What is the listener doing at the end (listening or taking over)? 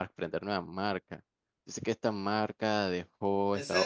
taking over